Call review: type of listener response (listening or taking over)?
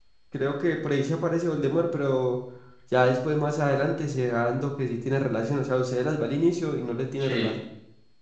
listening